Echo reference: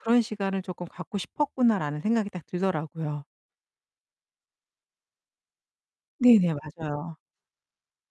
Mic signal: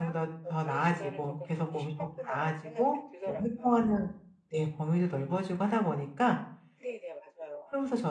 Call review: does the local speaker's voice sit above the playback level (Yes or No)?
Yes